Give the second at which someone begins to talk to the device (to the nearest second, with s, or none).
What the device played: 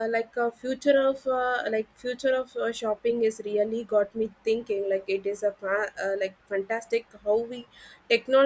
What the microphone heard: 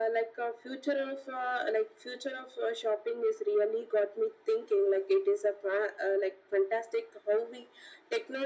none